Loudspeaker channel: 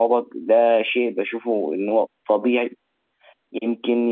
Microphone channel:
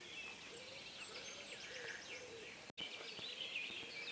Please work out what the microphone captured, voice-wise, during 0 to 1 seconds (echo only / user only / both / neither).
neither